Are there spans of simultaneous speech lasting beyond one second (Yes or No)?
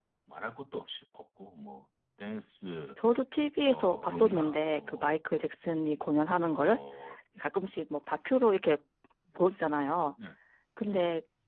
Yes